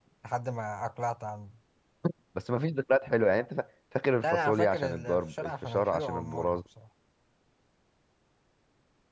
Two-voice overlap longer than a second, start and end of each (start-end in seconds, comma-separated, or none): 4.2-6.6